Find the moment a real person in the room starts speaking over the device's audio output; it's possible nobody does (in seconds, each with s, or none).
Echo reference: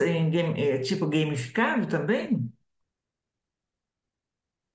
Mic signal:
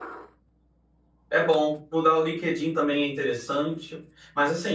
1.3 s